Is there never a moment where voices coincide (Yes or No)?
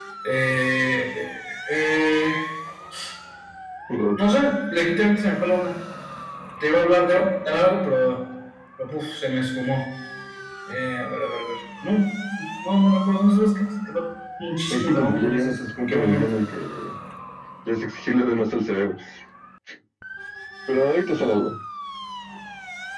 No